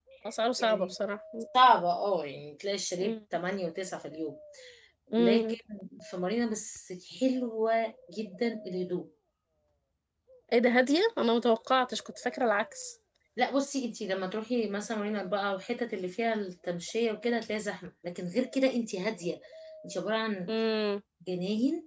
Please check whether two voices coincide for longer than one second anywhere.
No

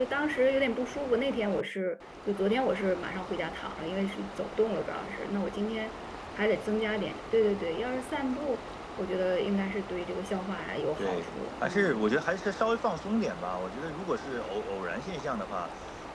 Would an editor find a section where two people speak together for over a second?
Yes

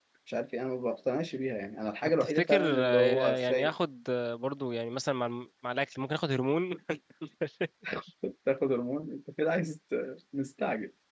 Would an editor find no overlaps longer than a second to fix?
No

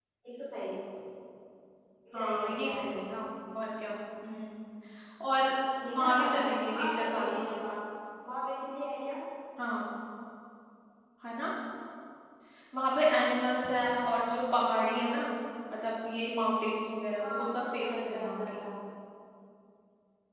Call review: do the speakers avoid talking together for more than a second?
No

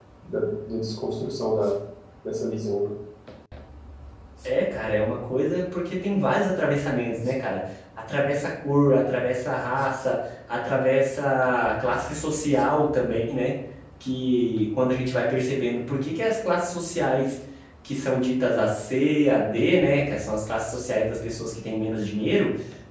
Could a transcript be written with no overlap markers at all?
Yes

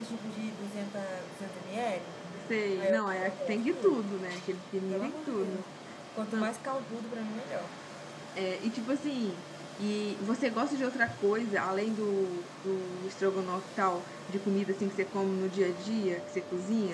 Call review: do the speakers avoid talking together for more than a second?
No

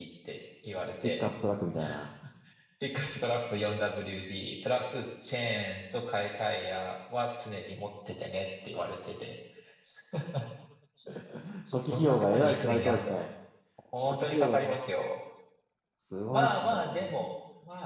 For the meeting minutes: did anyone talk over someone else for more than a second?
Yes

